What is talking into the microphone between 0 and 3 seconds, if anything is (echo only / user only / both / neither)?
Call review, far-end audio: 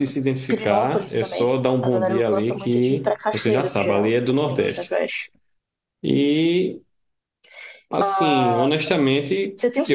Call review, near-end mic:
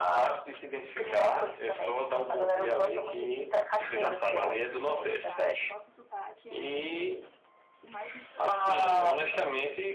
both